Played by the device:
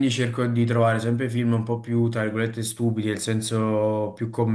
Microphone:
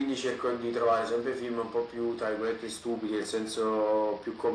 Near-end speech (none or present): none